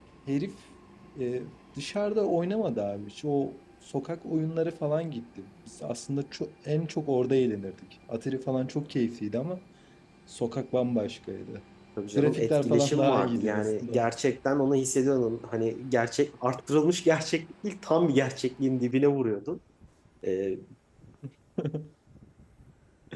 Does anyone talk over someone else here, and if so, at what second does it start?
12.2 s

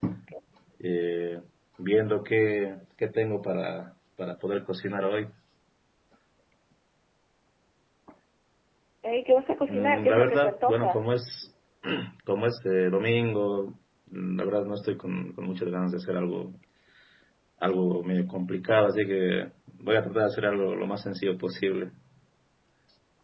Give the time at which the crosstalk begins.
9.7 s

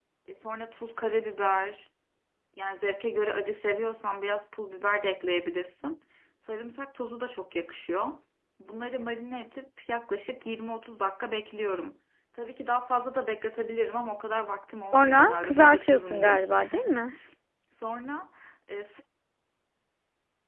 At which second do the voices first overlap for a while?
14.9 s

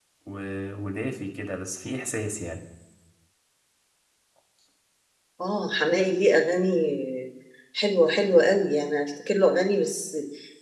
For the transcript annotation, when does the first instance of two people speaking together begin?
none

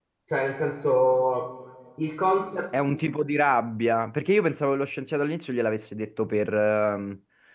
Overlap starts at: none

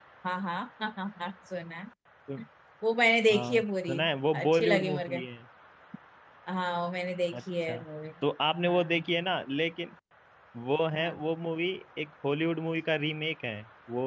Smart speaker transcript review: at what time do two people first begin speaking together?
3.3 s

